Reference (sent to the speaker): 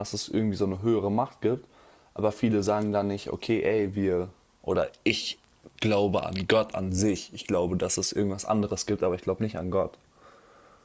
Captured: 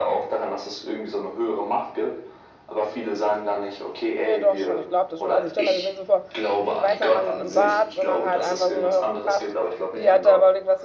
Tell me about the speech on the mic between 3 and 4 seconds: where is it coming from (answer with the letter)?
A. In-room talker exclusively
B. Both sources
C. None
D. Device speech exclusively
D